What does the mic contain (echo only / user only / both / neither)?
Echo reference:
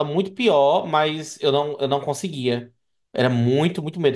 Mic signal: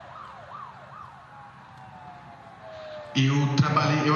user only